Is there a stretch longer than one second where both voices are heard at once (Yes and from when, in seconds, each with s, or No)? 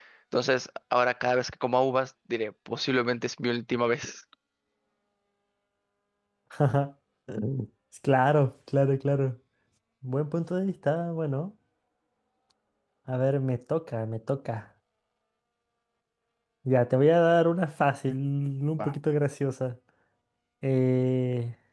No